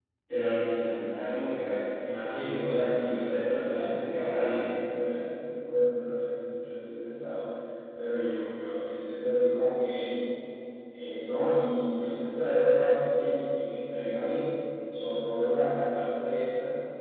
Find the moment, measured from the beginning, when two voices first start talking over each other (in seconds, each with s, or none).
2.0 s